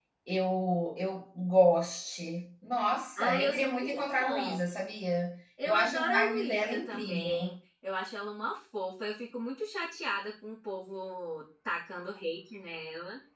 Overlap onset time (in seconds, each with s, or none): 3.2 s